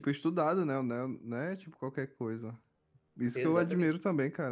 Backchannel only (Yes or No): Yes